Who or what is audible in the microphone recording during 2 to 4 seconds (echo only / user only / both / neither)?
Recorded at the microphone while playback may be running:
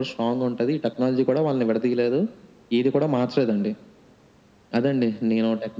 echo only